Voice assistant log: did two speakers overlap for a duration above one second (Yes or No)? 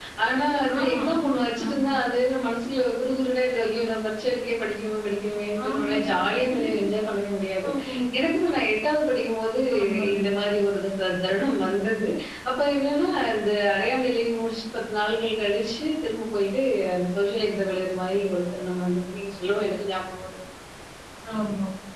Yes